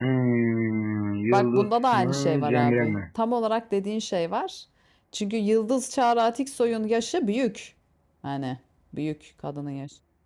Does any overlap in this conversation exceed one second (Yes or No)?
Yes